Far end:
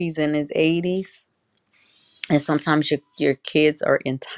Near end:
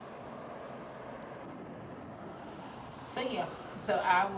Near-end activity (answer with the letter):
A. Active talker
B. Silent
A